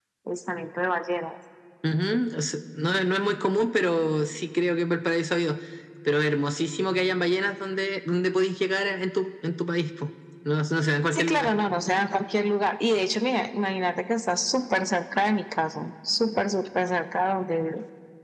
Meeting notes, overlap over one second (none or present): none